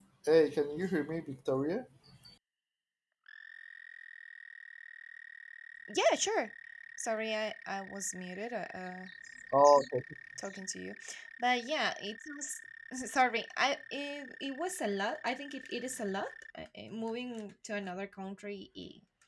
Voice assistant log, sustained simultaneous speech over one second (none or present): none